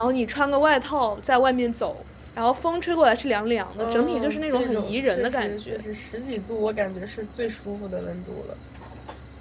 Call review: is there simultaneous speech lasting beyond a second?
Yes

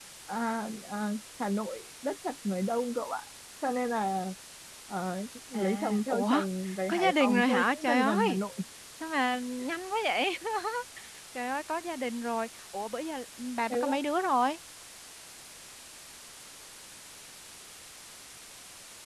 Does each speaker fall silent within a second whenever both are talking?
No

